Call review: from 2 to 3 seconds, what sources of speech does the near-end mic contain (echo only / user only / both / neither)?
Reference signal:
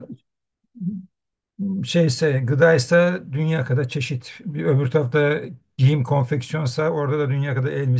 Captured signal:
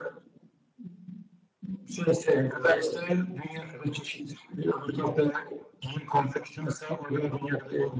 both